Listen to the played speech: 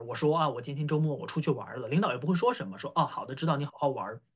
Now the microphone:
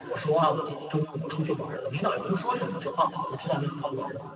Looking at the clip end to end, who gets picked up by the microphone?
echo only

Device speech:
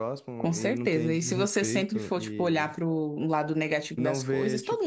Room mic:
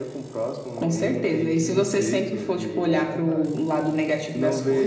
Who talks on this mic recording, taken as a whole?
both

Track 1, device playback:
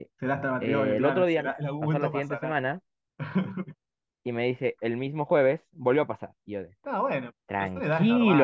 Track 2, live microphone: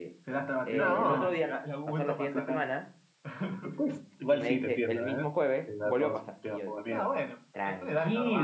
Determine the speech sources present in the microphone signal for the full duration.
both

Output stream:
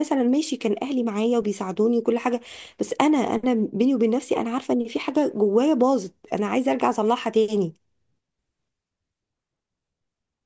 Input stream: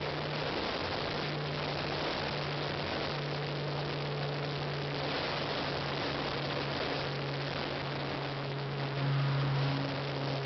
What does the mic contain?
neither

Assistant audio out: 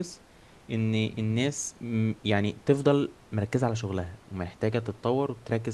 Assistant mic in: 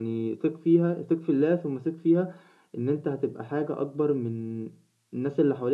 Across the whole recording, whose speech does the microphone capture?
user only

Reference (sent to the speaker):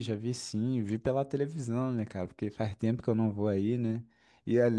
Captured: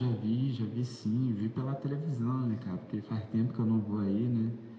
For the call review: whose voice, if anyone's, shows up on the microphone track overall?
echo only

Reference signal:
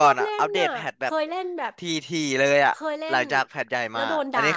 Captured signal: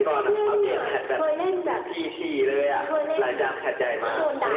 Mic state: echo only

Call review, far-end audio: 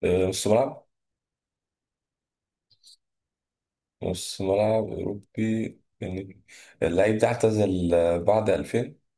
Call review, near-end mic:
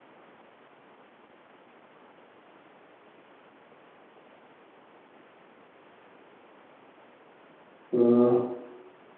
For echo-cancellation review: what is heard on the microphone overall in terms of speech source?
user only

